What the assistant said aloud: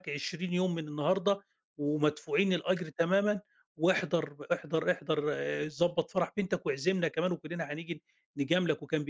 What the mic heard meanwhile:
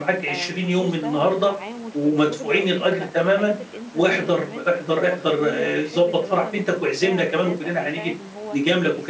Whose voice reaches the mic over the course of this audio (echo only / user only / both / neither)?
both